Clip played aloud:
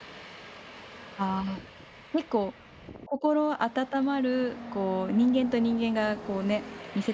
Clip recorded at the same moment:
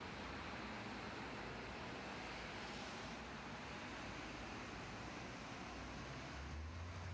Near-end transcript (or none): none